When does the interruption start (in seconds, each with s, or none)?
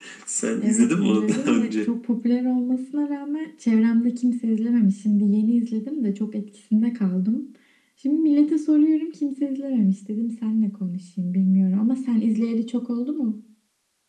0.6 s